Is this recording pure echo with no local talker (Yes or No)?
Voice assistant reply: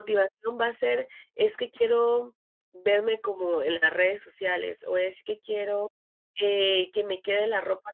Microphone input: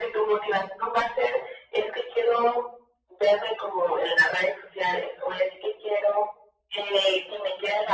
Yes